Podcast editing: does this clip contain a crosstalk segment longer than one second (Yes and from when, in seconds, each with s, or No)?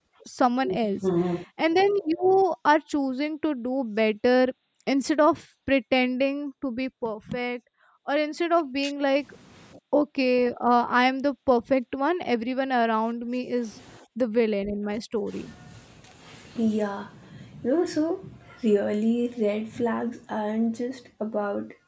No